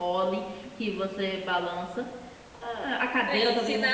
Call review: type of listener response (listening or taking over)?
taking over